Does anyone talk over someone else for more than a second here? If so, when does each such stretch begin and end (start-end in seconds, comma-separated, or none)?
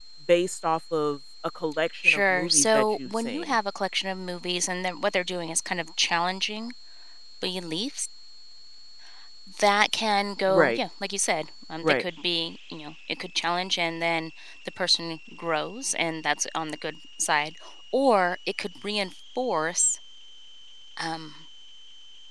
2.0-3.5